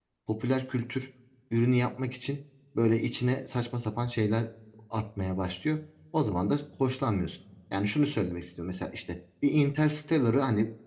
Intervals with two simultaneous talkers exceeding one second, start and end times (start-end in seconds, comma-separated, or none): none